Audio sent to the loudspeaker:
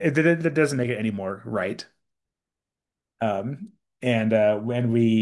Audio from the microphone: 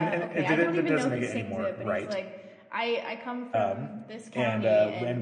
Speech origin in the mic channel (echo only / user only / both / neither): both